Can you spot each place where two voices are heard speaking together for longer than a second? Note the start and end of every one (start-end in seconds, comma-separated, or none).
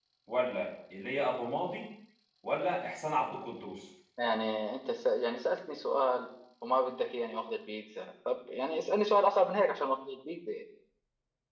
none